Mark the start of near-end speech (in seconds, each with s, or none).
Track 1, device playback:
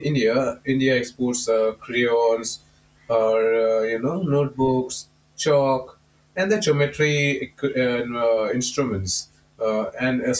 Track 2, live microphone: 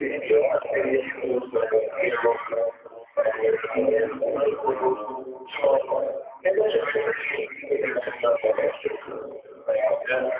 3.7 s